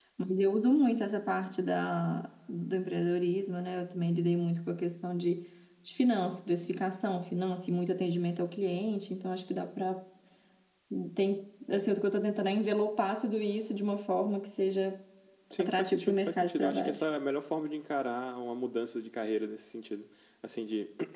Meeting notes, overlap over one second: present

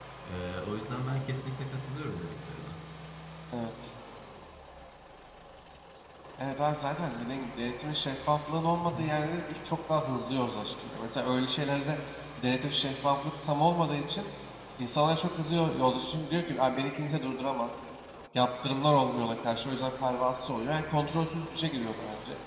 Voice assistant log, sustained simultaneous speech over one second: none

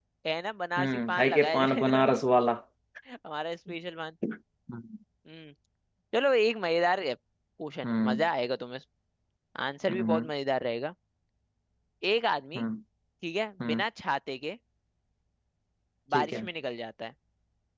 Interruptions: present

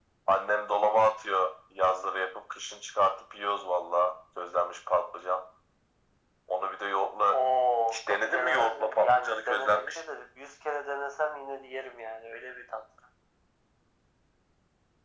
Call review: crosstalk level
present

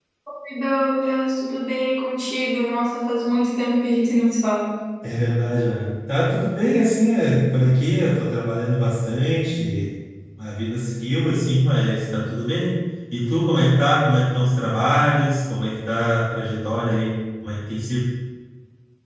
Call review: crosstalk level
none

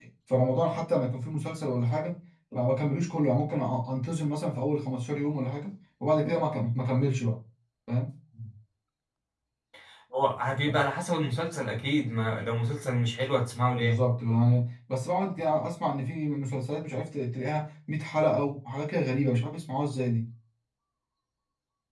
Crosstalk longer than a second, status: none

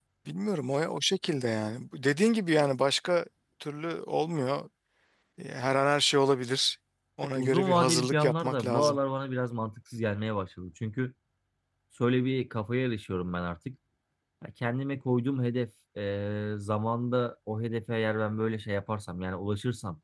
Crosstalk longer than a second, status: present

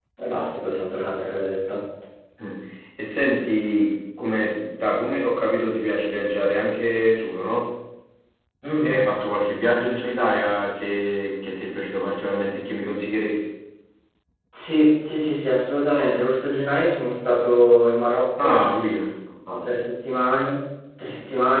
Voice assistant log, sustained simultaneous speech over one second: none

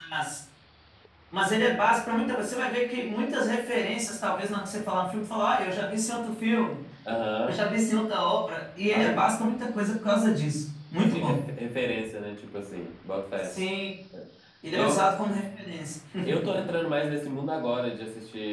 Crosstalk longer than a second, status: none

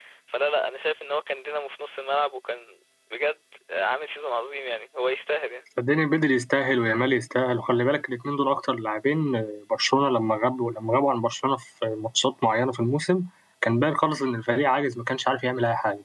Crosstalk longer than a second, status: none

